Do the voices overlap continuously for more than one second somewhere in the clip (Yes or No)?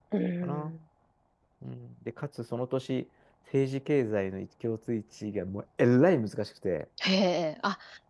No